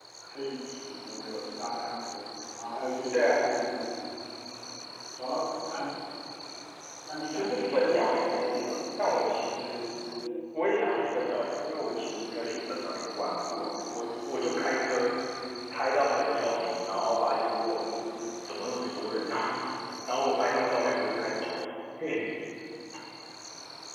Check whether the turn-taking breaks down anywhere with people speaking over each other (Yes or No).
Yes